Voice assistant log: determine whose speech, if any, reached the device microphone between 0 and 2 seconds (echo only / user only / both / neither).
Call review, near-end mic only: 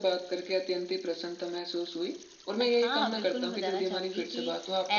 echo only